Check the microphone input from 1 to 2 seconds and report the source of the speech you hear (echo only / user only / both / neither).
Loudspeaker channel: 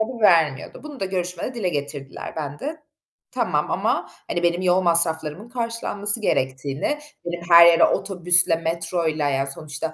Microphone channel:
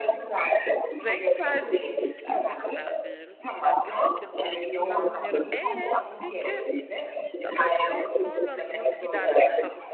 both